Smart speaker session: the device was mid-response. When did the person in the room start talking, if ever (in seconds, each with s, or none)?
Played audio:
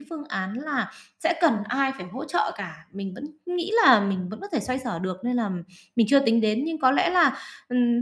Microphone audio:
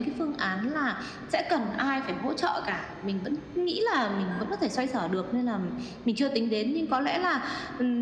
none